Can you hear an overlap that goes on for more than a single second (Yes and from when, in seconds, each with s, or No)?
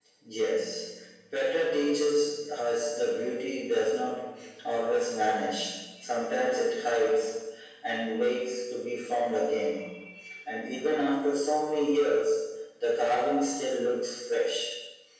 No